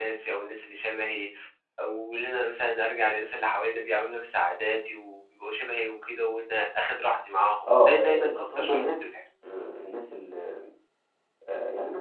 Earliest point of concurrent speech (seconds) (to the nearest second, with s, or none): 8 s